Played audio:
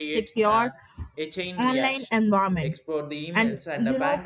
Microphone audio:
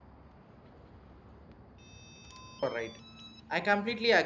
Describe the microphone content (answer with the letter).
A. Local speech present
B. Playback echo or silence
A